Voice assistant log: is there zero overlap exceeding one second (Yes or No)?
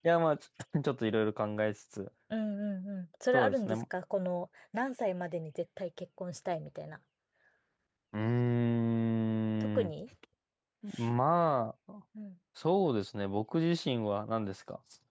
Yes